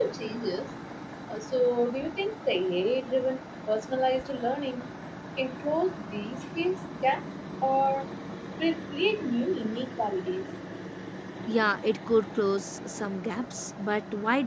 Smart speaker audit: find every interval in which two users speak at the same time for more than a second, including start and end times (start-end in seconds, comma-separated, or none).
none